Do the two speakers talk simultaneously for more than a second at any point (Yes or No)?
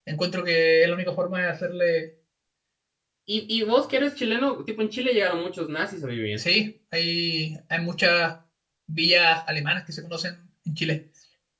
No